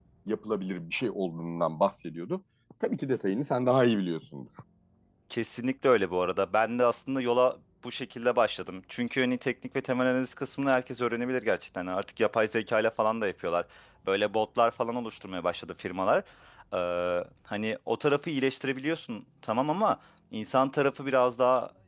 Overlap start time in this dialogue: none

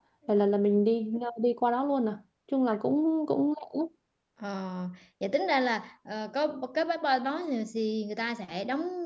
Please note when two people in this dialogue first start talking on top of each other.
none

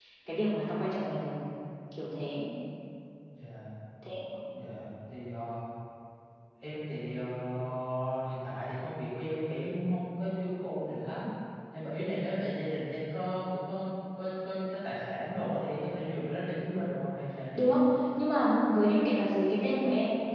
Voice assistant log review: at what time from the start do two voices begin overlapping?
none

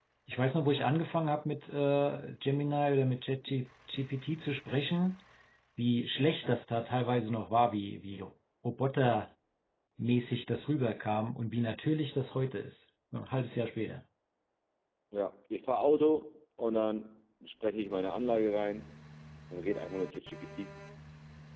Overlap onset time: none

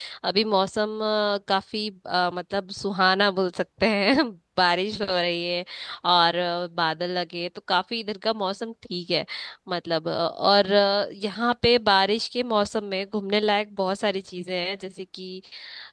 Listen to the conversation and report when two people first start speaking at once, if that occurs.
none

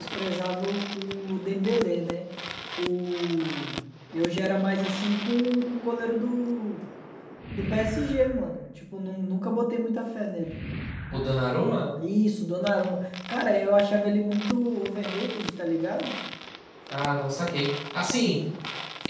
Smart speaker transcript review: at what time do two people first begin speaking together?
none

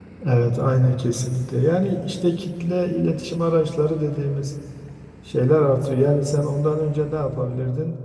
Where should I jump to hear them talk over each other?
none

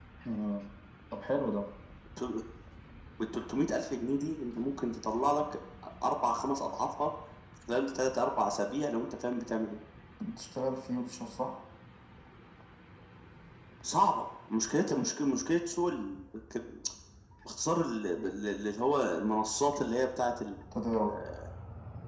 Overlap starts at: none

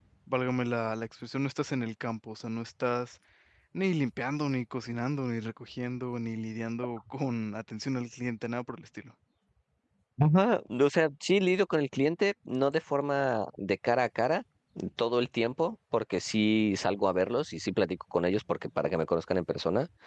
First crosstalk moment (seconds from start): none

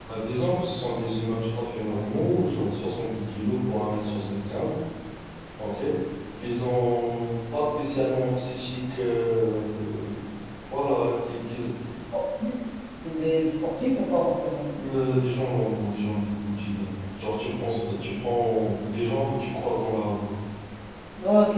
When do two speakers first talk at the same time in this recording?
none

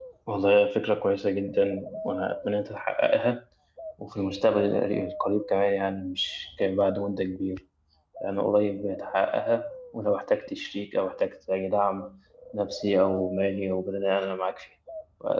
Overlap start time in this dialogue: none

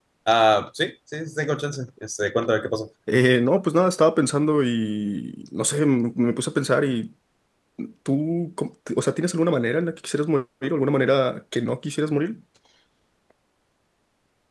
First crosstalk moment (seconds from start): none

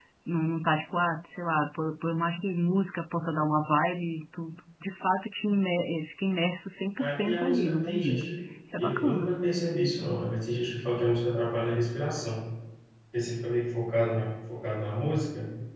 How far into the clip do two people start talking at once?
7.0 s

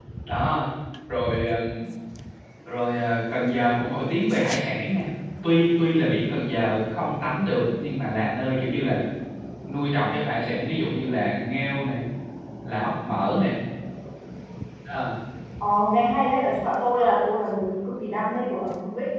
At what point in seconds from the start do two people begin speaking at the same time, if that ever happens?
none

